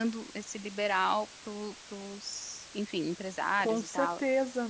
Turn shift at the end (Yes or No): Yes